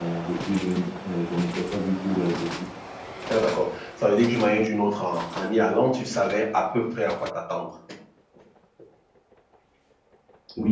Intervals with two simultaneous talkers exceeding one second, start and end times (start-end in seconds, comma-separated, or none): none